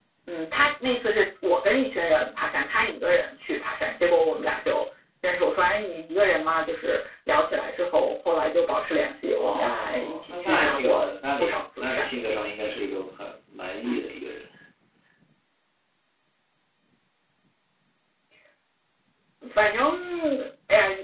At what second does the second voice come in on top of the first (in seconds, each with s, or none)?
9.4 s